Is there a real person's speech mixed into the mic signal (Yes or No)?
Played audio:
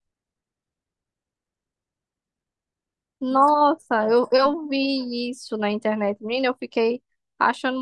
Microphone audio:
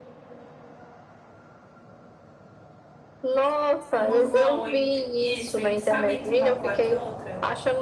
Yes